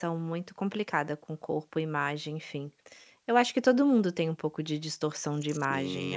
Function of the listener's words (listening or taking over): taking over